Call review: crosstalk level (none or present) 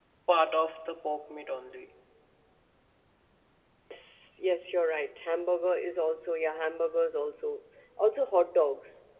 none